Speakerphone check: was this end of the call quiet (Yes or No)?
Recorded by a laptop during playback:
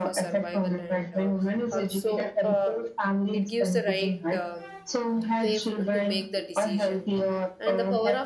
No